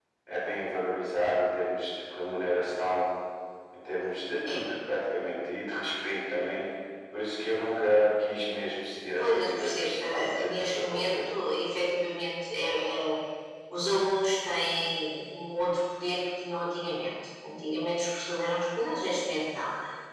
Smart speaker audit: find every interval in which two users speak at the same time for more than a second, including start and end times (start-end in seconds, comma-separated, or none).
9.2-11.2